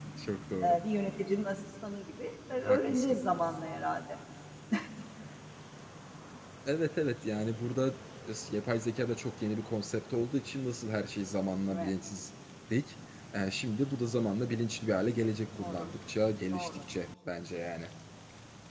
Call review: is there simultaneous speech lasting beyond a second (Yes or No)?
No